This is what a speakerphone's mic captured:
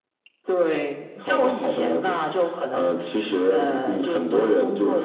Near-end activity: none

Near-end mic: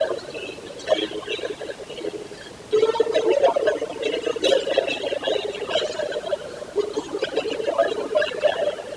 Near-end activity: none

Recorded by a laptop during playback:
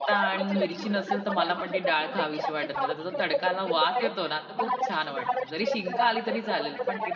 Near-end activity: present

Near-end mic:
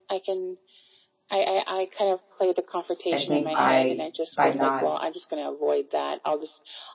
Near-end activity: present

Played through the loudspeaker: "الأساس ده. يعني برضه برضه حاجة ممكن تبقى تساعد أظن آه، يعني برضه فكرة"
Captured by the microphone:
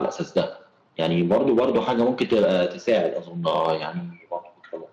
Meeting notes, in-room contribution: none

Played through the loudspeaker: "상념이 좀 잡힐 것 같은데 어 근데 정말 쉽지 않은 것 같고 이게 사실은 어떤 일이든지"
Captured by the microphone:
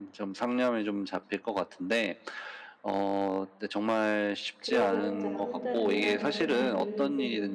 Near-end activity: present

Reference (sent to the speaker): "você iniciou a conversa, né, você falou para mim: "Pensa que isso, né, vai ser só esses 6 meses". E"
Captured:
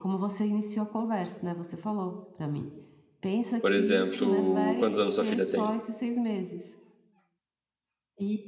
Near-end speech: present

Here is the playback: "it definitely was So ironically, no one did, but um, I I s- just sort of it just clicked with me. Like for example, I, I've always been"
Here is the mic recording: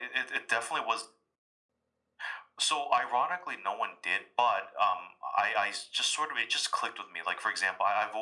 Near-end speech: none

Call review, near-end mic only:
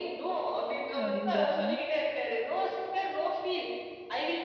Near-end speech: present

